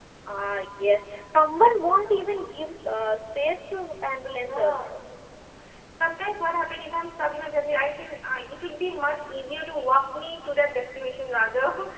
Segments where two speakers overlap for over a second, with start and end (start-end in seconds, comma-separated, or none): none